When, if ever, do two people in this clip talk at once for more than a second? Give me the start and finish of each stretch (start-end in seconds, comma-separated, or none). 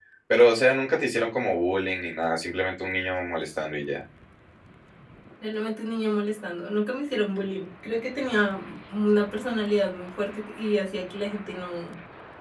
none